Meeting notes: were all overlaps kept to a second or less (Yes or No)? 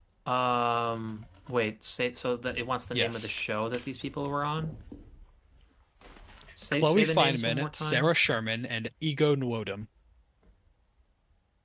No